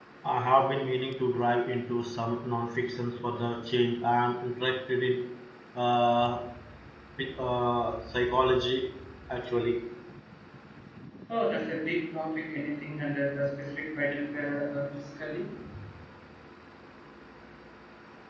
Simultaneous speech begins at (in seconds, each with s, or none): none